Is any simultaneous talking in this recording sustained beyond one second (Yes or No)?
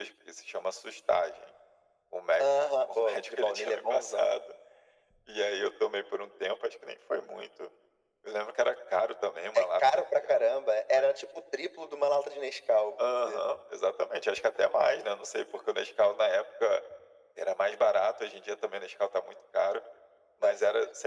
Yes